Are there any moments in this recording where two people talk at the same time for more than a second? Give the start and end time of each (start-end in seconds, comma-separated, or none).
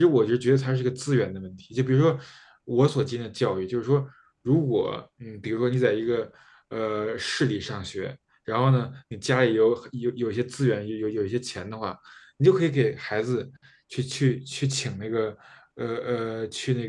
none